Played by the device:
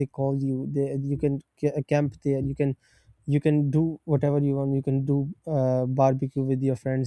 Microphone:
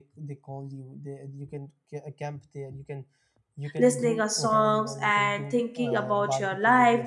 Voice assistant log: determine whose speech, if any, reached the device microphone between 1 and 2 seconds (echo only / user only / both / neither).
echo only